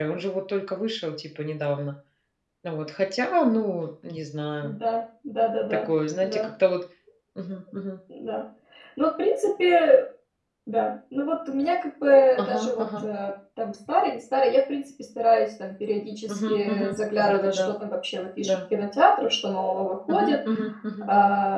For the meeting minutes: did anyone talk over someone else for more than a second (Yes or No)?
Yes